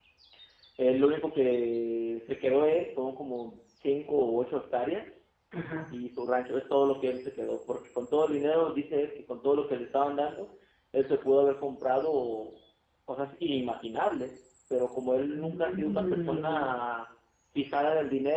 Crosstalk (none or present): present